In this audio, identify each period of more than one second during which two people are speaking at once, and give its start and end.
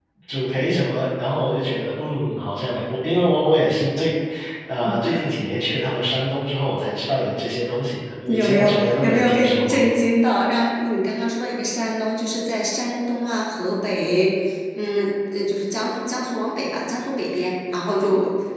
8.3-9.8

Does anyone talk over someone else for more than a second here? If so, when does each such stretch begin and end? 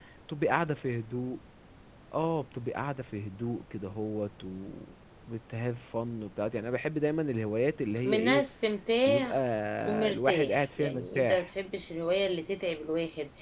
10.1-11.5

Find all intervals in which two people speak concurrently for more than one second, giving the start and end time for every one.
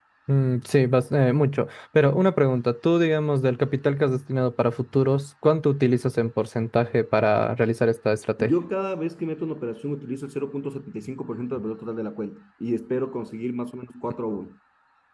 none

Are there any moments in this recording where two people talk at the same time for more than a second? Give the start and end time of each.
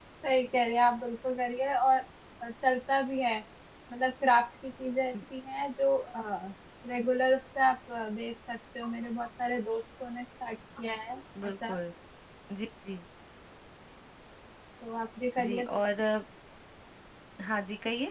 none

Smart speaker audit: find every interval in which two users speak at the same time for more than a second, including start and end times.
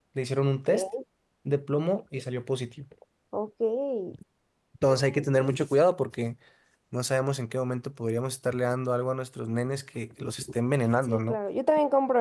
none

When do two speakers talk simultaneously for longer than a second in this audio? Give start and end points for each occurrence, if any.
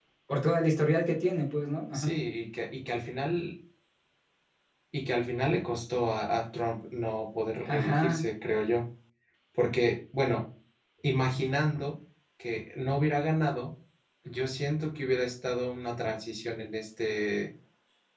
none

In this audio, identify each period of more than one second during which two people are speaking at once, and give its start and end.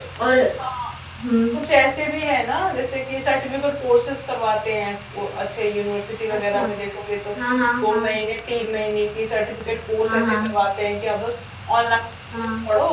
none

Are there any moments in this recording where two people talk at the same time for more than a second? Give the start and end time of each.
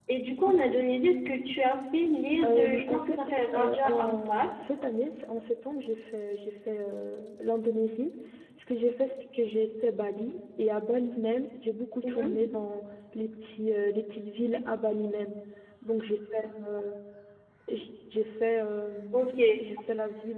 2.4-4.5

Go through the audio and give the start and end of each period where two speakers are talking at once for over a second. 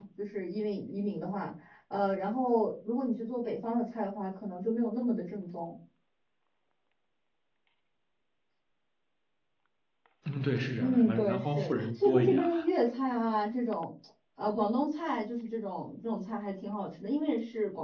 10.8-12.5

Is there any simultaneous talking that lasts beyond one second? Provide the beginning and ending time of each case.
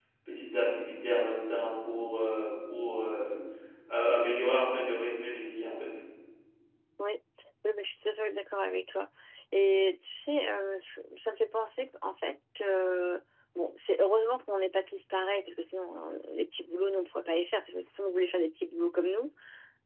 none

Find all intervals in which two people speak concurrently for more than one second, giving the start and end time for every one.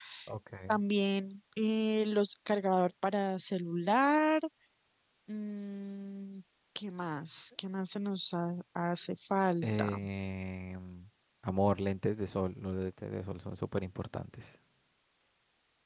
none

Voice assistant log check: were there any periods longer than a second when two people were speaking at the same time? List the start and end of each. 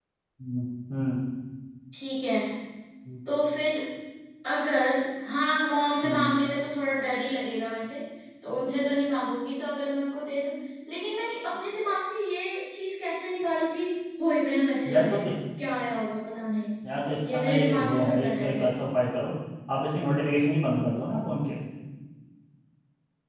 17.3-18.7

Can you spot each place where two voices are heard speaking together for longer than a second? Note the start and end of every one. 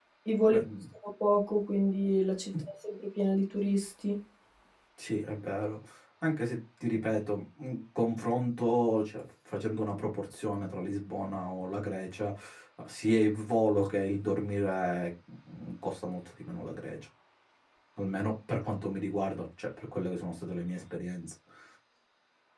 none

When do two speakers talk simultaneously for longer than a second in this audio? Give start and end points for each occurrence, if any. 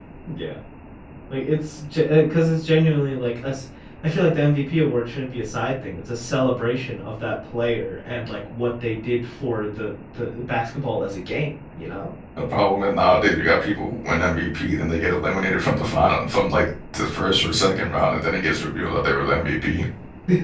none

